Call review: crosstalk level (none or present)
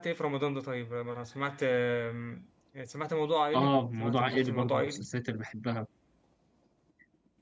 present